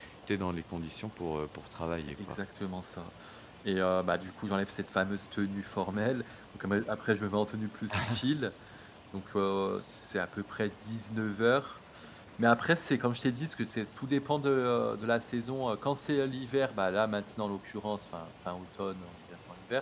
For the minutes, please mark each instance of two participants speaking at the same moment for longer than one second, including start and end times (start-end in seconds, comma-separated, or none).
none